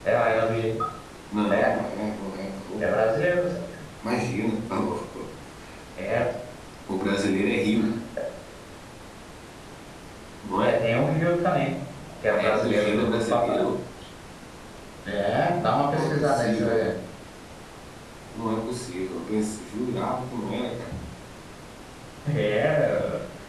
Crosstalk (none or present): present